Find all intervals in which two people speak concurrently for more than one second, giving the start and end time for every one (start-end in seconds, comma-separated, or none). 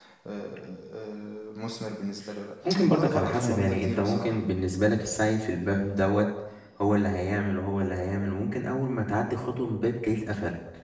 2.9-4.4